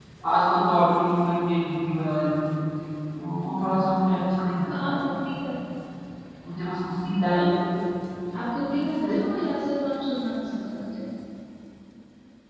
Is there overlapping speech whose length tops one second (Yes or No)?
No